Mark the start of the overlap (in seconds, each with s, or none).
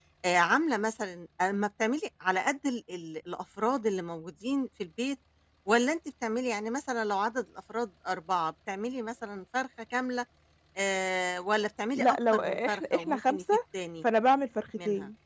11.9 s